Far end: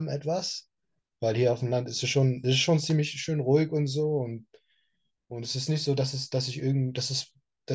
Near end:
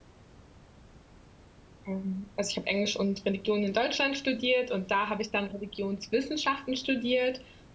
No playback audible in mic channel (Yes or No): Yes